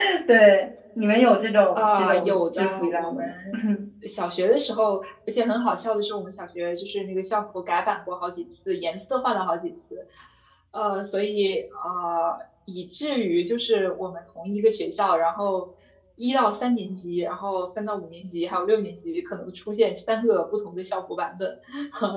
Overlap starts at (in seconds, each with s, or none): 1.8 s